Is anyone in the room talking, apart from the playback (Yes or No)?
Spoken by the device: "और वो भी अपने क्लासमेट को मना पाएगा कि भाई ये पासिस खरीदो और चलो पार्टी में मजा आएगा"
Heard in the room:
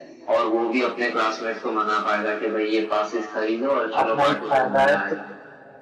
Yes